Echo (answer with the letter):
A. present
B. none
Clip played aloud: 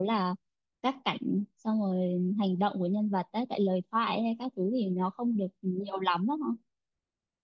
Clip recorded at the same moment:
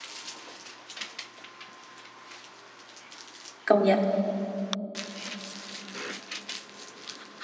B